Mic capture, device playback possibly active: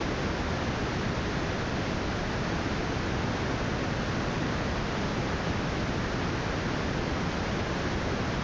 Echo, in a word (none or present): none